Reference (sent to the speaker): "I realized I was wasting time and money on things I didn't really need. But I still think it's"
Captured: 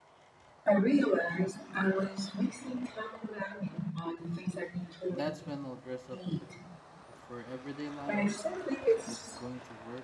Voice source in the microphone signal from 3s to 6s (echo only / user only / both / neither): both